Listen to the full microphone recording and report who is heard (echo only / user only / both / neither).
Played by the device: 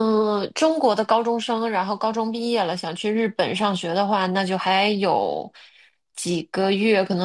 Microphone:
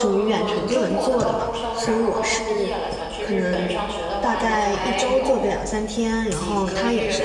both